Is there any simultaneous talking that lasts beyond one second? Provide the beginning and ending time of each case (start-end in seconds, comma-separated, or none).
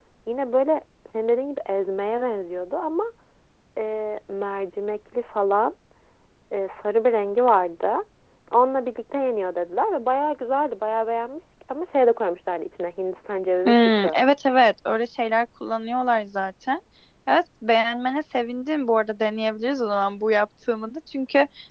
none